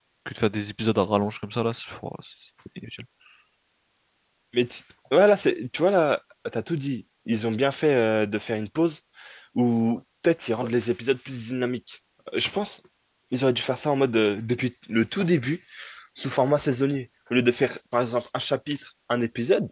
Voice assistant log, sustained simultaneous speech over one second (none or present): none